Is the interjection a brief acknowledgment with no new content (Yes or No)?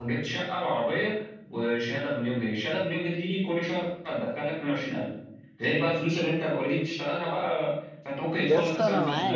No